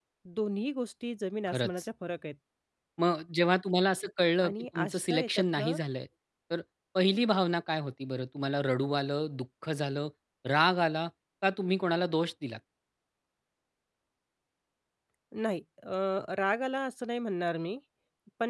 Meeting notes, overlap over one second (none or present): present